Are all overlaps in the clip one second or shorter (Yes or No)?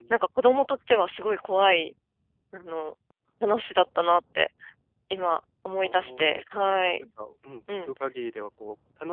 No